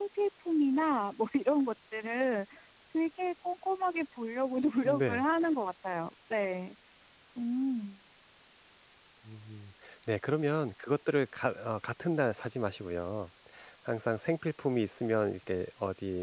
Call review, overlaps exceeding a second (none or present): none